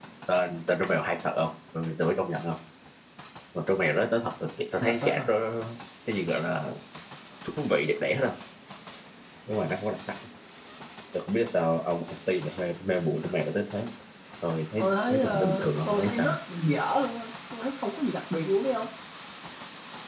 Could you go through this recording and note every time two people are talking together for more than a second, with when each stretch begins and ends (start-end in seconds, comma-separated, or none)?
14.8-16.4